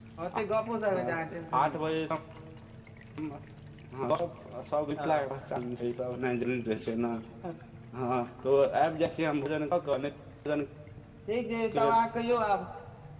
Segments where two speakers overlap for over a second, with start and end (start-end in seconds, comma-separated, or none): none